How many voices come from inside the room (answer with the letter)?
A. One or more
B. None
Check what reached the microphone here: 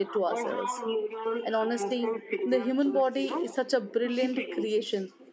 A